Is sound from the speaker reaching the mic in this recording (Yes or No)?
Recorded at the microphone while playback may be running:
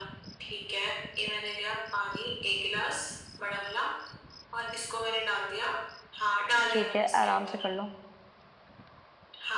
Yes